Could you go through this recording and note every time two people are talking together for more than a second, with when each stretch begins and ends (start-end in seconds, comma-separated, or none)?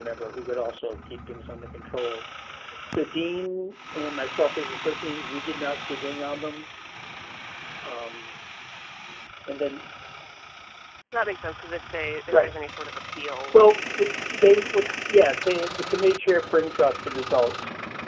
13.5-14.9